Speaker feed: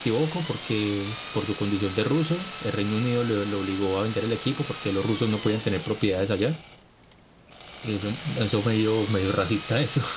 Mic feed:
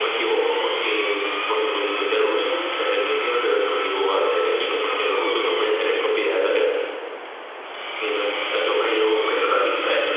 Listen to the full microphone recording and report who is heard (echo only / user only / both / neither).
echo only